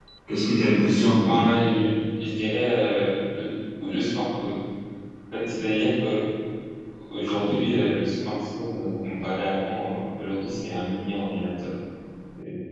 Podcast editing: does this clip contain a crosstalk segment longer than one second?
No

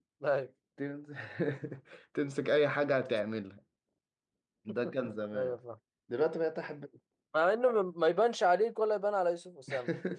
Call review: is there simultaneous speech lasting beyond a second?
No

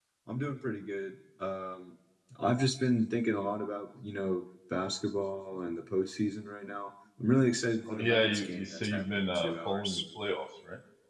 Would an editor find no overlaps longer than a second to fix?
No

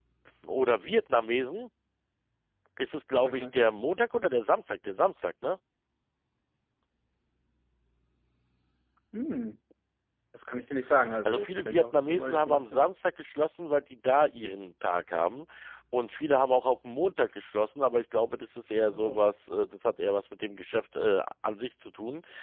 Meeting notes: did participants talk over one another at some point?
Yes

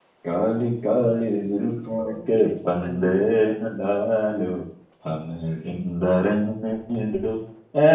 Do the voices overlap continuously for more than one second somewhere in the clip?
Yes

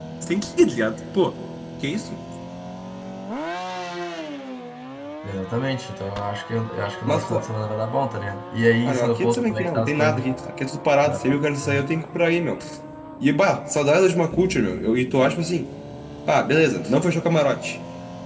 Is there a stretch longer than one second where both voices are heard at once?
Yes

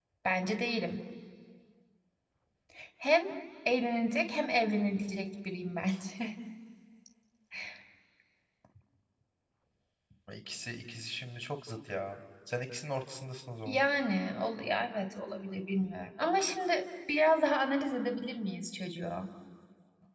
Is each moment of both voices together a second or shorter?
Yes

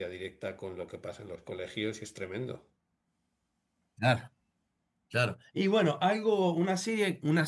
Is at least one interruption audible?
No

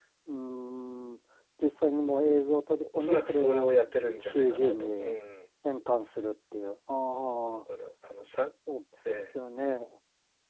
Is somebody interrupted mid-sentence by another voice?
Yes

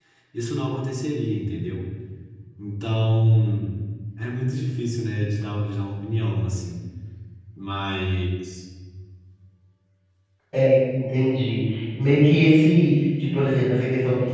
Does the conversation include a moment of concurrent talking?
No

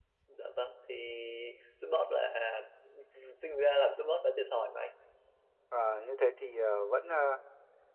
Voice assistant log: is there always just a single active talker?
Yes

